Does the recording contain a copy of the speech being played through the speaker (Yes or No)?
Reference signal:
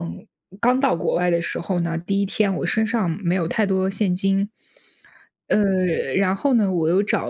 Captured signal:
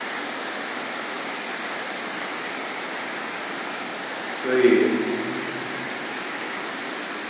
No